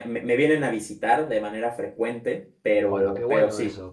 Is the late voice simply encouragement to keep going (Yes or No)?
No